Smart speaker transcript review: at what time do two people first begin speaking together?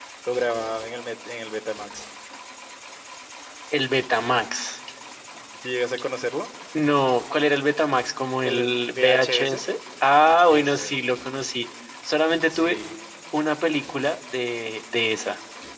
8.4 s

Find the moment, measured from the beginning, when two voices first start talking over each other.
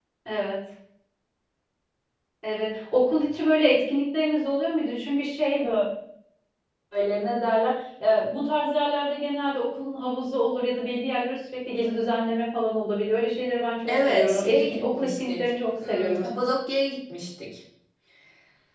13.9 s

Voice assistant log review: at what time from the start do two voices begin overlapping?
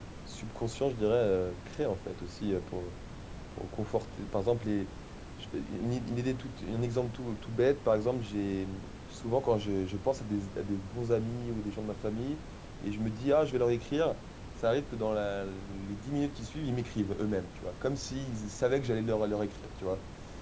none

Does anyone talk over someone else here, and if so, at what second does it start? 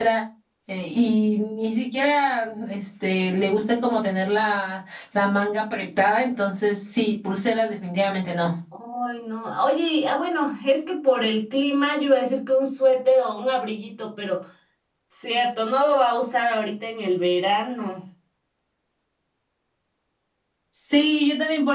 none

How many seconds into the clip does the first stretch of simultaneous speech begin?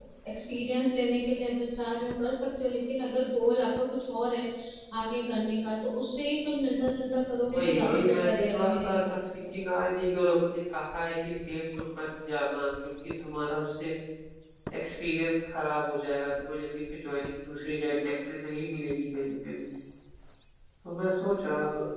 7.5 s

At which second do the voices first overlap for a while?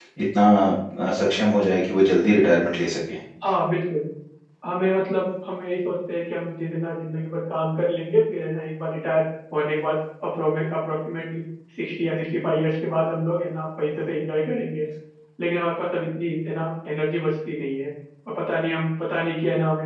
none

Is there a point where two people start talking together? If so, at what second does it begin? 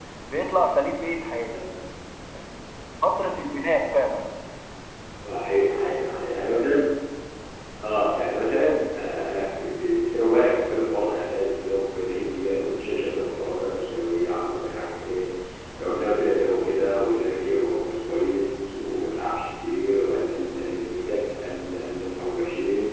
none

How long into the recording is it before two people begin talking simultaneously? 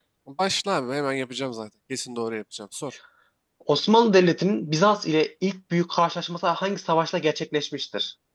none

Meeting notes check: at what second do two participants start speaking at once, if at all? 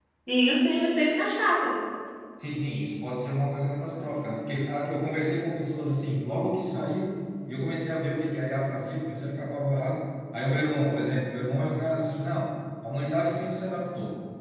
none

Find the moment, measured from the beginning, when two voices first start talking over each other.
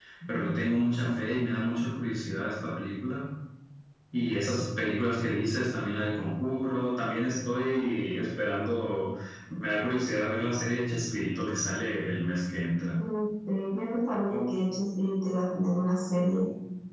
none

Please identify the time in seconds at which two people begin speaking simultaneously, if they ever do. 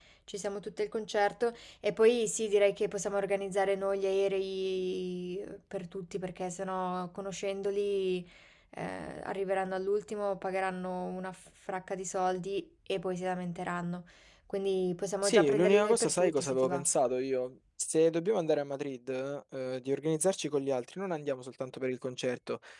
15.2 s

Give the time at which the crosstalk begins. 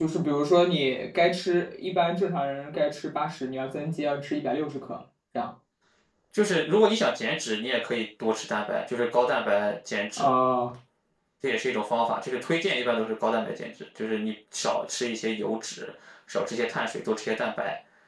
none

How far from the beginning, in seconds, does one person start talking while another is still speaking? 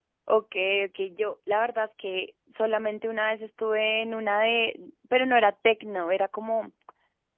none

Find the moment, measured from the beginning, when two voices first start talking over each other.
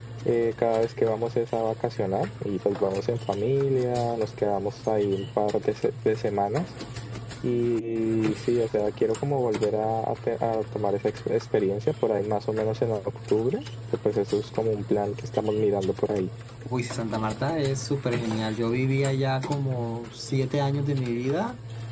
none

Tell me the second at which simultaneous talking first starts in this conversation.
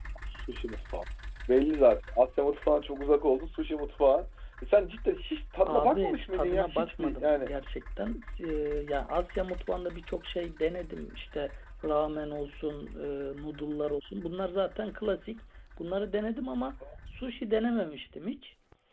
5.7 s

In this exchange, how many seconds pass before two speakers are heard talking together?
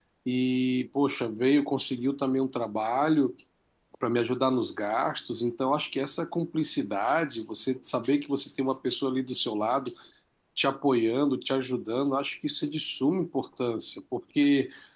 none

